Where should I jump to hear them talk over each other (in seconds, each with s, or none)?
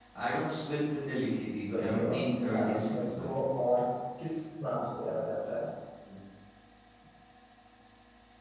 1.5 s